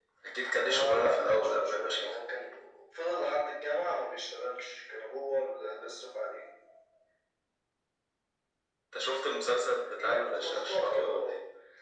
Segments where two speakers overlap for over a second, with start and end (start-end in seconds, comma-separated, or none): 0.5-2.1, 10.0-11.3